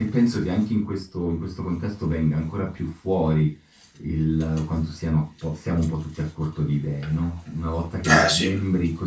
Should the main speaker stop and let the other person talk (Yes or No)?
No